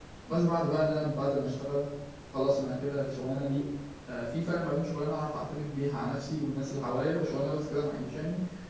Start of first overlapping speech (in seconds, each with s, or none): none